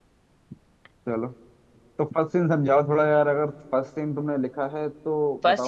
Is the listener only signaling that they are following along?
No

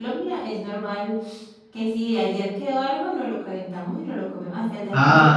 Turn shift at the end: Yes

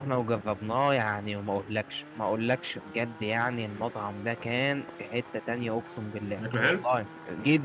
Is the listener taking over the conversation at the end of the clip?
No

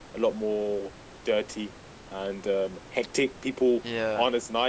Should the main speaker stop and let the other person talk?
No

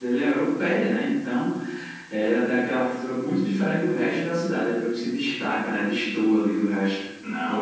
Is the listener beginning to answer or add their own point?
Yes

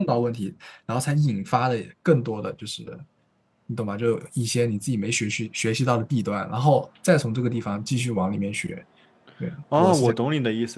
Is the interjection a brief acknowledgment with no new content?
No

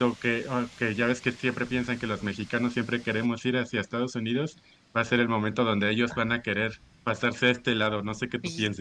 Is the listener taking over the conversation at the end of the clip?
Yes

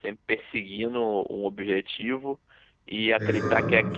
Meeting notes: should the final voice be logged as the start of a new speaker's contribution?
No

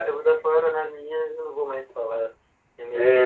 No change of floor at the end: No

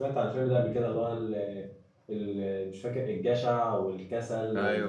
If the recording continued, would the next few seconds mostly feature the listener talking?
Yes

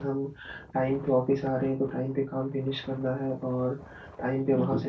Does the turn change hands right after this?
Yes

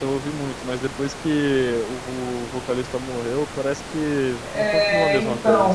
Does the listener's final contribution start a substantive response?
Yes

